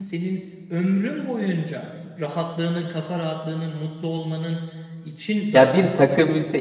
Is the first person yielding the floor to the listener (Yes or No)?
Yes